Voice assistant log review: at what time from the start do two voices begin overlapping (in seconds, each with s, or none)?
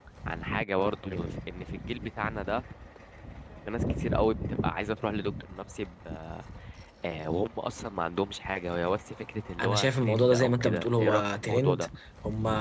9.6 s